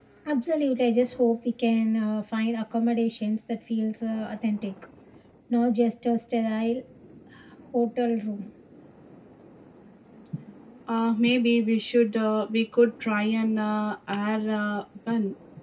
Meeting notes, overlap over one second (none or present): none